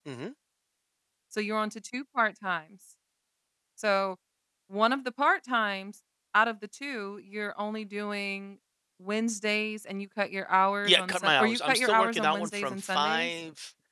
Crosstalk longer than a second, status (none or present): present